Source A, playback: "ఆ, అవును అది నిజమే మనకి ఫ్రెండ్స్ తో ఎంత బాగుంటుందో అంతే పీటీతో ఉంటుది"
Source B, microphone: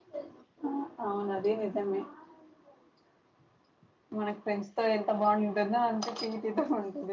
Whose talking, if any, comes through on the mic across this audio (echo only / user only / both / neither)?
echo only